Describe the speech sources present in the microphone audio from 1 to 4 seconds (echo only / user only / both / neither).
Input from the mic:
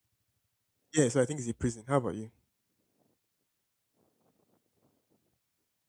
user only